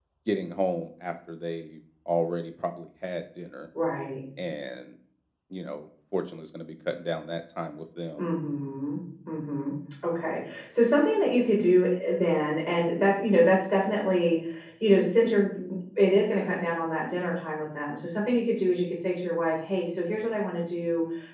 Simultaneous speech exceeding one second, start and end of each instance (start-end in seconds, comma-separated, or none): none